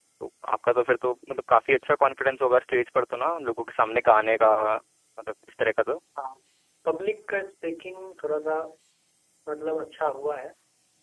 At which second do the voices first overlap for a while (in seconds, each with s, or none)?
none